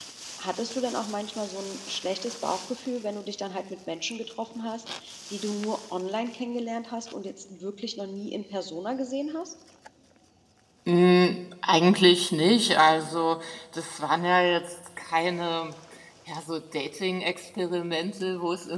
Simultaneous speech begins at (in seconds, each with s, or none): none